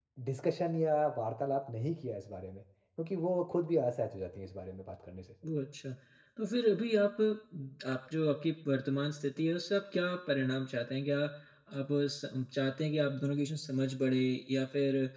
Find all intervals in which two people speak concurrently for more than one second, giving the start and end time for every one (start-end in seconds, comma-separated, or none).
none